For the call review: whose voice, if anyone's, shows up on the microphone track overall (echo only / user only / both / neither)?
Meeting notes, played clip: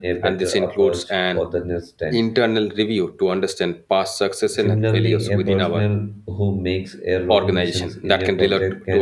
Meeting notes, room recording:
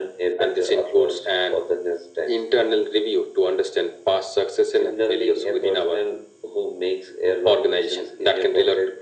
echo only